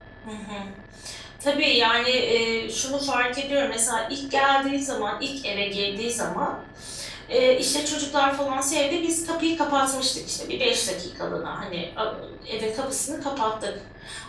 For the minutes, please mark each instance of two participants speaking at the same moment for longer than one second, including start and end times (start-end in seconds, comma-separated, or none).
none